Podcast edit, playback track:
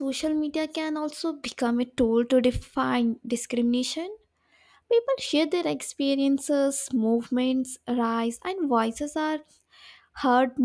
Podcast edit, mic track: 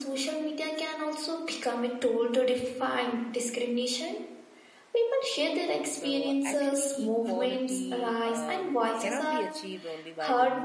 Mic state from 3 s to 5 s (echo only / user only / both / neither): echo only